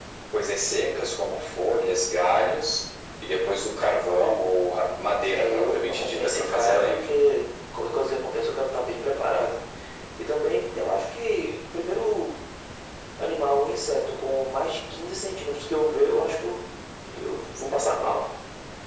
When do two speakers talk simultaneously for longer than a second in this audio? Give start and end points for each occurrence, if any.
5.3-7.0

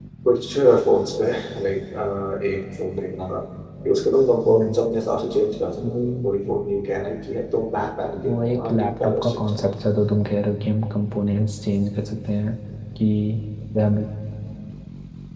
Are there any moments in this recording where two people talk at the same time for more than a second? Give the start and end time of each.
8.3-9.8

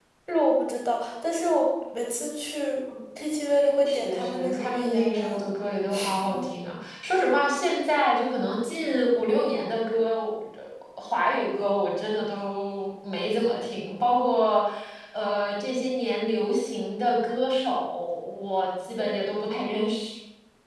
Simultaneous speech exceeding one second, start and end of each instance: 3.9-5.4

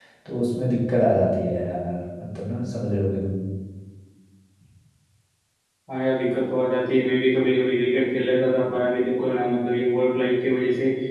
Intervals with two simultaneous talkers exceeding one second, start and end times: none

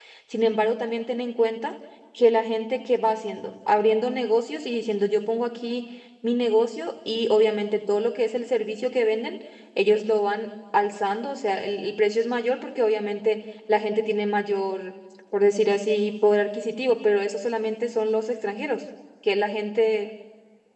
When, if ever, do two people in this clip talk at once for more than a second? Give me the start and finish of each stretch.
none

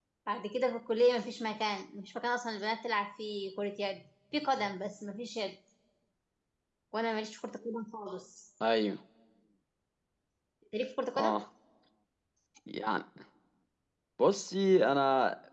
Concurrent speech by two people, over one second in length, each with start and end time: none

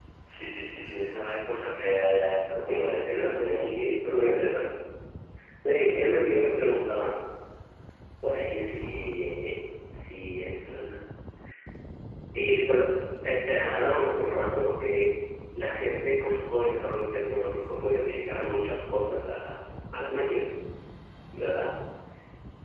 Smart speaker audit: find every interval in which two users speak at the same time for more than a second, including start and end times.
2.6-4.5

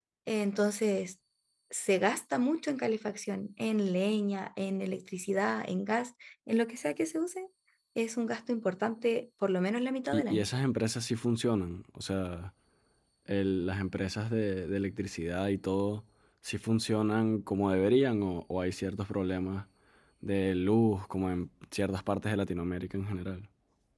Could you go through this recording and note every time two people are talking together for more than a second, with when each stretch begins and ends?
none

